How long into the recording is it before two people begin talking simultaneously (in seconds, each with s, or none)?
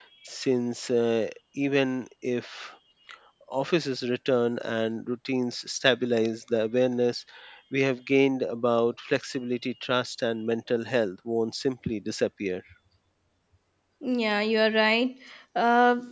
none